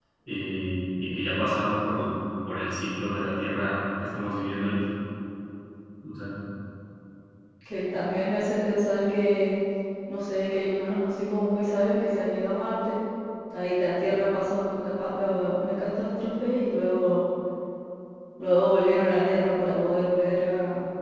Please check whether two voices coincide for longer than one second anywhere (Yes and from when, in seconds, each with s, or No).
No